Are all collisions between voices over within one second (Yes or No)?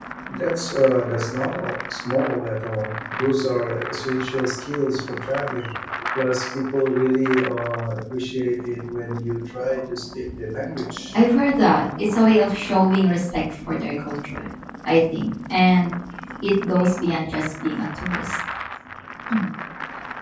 Yes